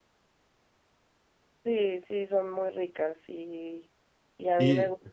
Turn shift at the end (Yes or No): No